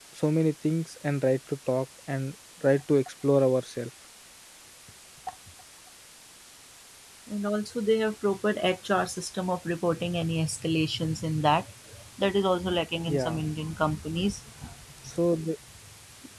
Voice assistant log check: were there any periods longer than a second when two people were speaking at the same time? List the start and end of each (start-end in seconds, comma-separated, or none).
none